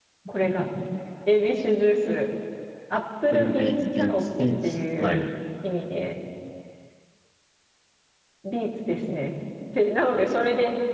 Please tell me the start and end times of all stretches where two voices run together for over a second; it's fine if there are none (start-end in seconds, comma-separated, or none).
3.3-5.2